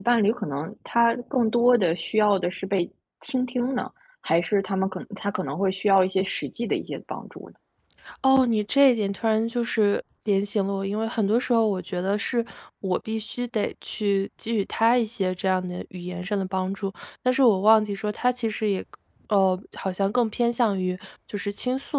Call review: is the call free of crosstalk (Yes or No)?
Yes